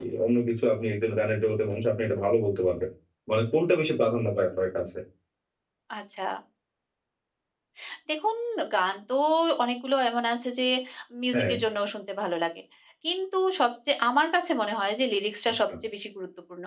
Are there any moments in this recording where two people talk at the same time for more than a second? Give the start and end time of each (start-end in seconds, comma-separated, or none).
none